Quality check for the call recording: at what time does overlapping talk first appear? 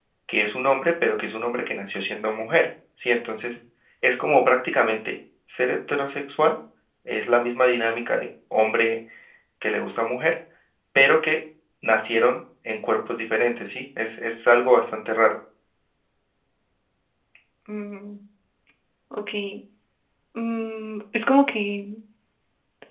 none

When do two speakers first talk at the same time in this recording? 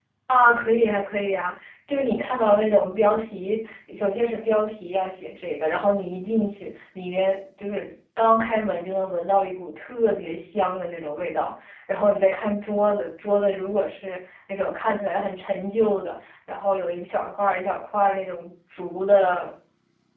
none

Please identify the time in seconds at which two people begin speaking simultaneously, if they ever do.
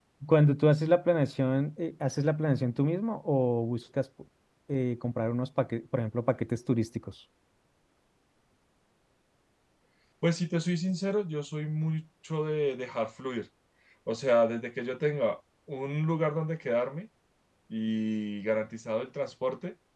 none

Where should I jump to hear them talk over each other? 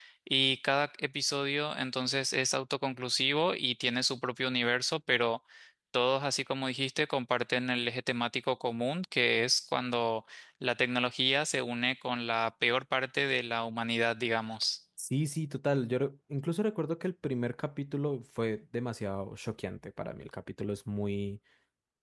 none

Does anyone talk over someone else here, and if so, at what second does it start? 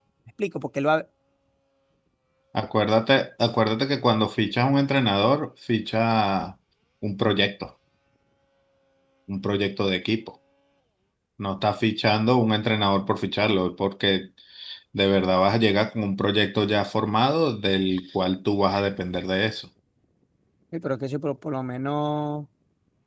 none

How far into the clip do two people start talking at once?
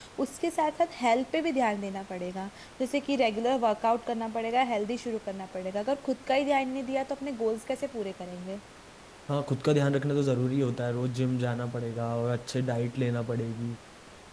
none

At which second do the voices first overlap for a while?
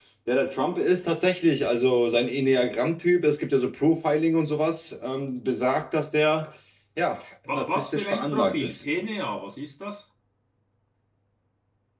8 s

